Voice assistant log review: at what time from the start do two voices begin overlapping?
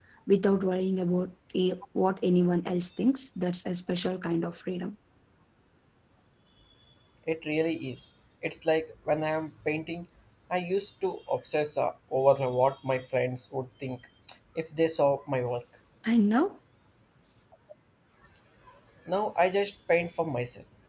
none

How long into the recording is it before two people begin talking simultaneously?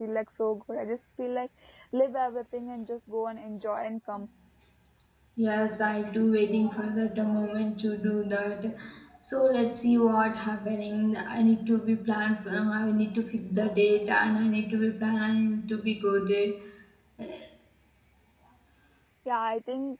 none

